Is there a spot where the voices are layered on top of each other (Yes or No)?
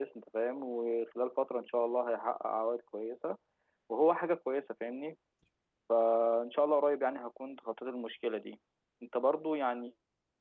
No